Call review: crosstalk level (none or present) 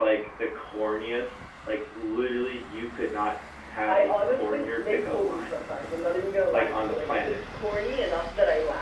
present